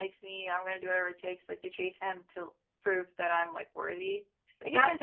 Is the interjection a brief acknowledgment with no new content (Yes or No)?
No